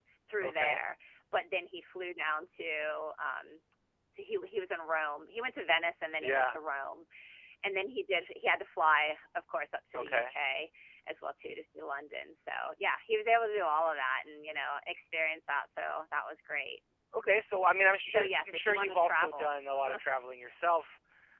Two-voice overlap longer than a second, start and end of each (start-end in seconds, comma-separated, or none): 18.1-19.5